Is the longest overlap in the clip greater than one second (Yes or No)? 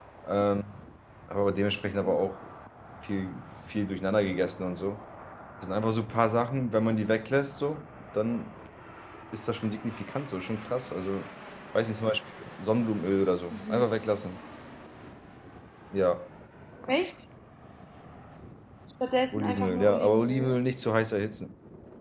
Yes